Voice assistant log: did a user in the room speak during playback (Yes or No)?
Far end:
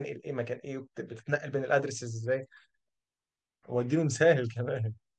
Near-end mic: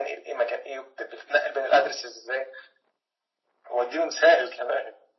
No